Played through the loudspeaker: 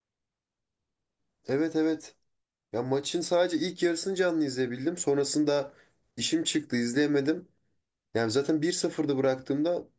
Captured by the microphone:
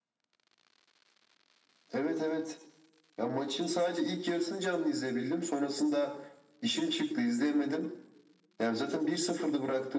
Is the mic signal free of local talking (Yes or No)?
Yes